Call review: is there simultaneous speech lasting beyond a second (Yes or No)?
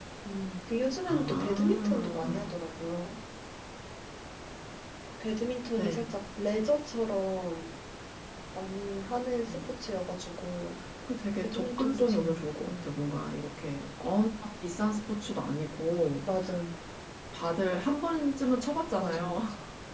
Yes